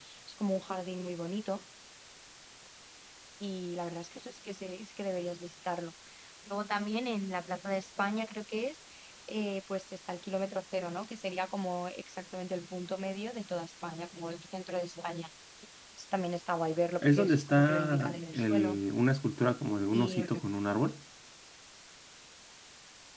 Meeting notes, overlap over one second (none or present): present